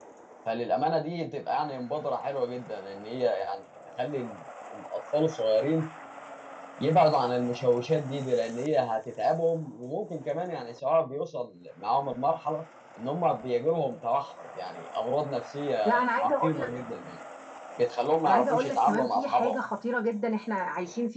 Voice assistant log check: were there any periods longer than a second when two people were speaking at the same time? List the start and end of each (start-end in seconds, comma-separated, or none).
18.2-19.6